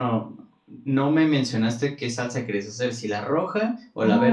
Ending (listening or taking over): taking over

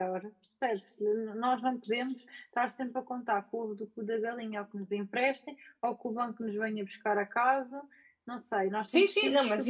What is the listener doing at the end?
taking over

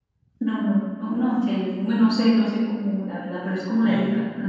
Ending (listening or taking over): listening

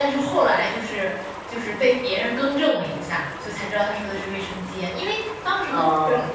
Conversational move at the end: listening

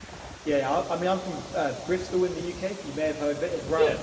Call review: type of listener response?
listening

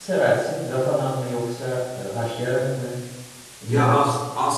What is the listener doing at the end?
taking over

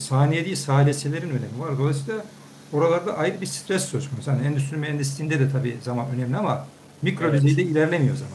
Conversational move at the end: listening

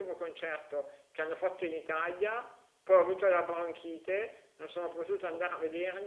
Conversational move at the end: listening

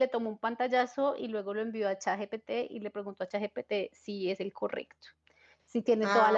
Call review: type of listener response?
listening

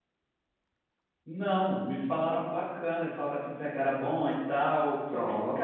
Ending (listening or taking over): listening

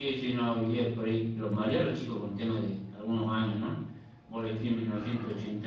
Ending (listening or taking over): listening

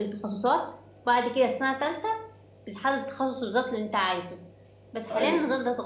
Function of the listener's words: listening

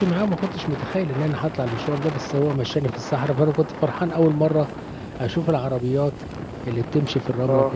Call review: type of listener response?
listening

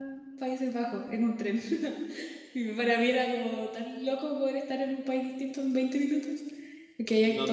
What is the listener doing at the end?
taking over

